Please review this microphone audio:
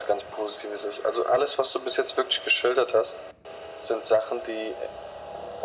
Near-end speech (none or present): none